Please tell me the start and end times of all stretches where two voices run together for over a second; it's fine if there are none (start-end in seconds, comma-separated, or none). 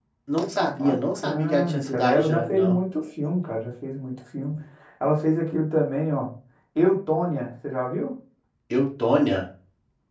0.8-2.8